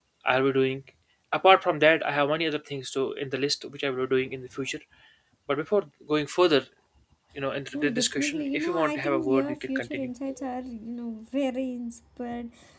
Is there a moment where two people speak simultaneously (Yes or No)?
Yes